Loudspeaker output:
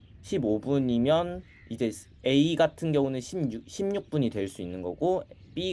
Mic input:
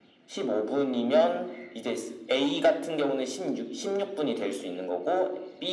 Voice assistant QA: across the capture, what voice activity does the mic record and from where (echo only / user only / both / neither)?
echo only